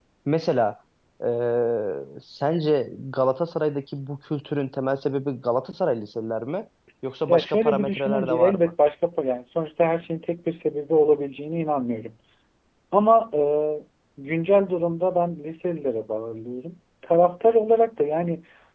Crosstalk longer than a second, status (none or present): present